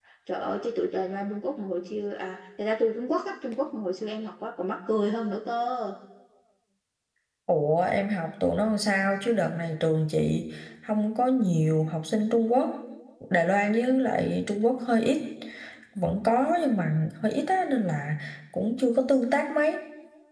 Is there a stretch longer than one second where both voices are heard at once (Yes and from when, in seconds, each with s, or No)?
No